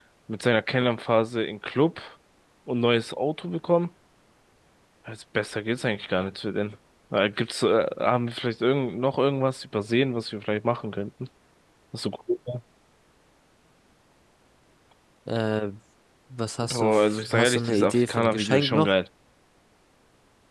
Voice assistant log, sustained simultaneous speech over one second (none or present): present